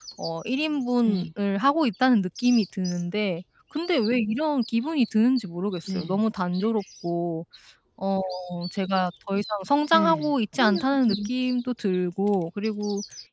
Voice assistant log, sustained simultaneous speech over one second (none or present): present